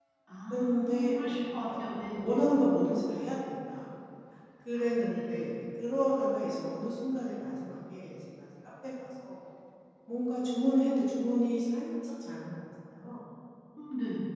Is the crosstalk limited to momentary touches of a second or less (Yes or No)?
No